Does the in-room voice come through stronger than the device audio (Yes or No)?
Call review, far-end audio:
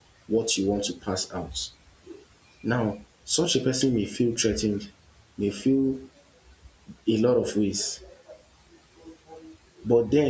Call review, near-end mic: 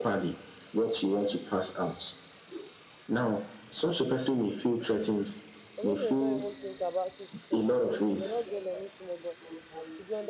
No